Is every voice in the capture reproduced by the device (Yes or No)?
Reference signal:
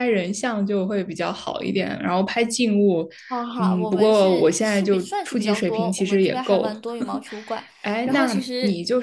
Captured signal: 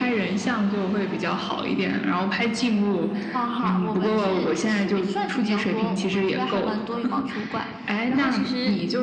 Yes